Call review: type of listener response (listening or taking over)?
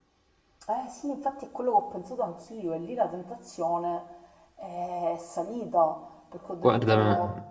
listening